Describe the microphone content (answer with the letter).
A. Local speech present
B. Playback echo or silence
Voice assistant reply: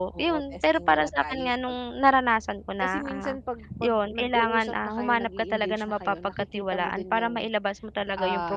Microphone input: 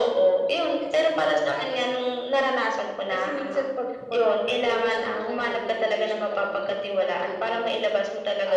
B